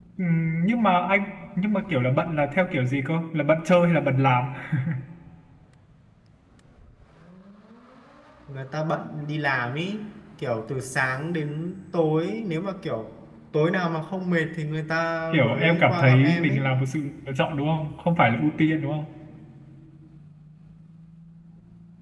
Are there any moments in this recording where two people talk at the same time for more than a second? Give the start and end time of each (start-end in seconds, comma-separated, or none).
15.3-16.7